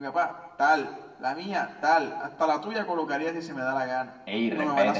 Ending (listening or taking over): listening